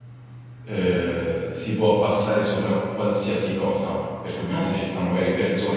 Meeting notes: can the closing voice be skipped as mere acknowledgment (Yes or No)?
Yes